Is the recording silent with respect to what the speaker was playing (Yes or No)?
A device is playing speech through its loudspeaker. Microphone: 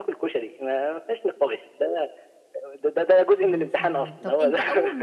No